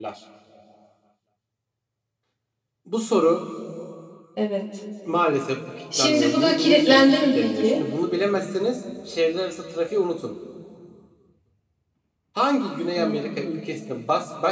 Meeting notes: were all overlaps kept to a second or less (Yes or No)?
No